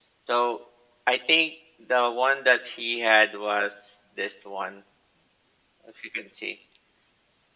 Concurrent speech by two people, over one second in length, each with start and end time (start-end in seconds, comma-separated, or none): none